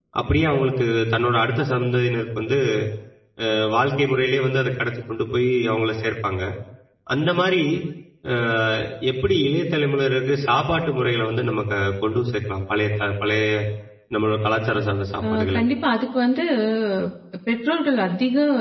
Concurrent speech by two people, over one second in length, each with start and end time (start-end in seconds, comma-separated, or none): none